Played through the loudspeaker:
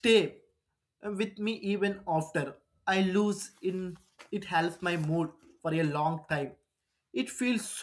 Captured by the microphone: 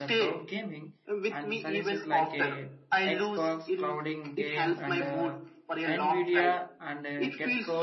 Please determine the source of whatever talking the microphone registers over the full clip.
both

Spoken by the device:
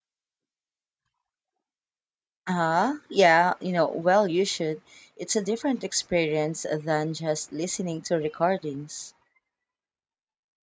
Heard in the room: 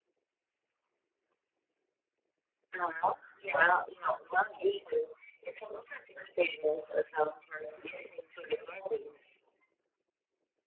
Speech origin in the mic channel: echo only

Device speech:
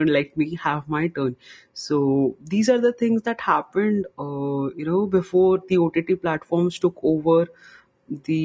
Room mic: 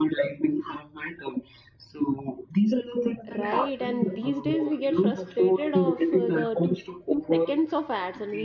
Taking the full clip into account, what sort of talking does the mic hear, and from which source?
both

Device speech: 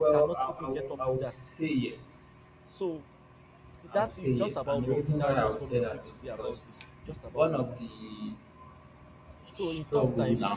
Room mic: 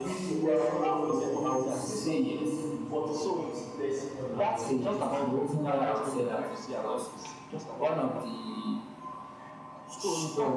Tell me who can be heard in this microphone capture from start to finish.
both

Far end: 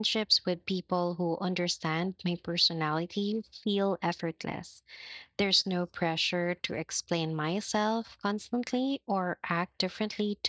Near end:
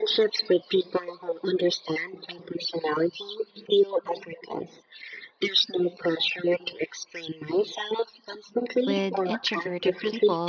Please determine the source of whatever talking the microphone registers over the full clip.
both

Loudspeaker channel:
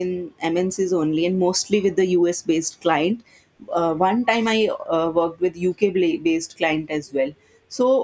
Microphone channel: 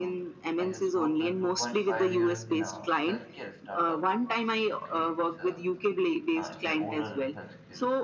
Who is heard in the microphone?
both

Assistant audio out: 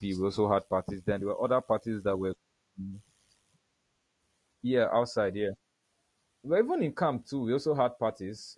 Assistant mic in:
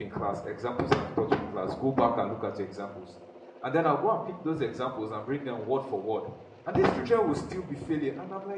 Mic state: user only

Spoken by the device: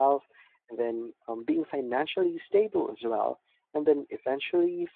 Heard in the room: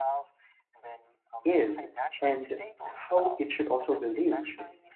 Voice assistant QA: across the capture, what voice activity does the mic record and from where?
both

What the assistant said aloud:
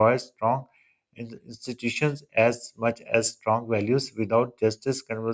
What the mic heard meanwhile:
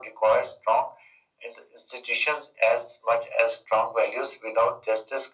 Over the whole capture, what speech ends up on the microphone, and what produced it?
echo only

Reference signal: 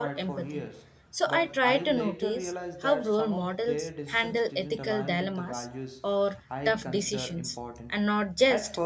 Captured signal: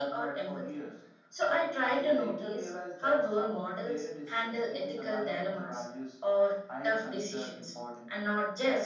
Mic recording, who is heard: echo only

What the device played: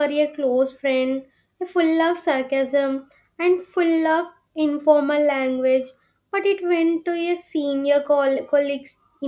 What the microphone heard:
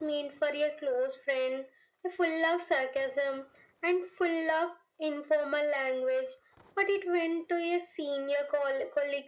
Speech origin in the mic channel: echo only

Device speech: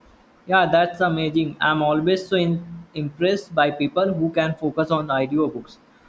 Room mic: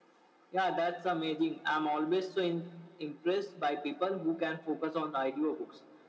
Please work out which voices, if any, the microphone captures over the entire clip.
echo only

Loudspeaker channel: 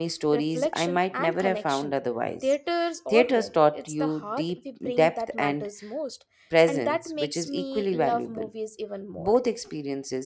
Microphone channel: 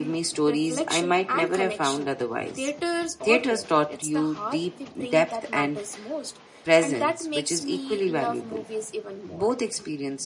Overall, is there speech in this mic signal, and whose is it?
echo only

